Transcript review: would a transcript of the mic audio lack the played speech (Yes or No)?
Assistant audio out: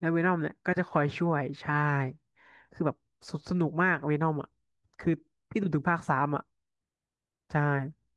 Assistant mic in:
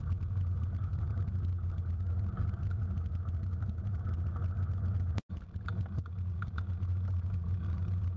Yes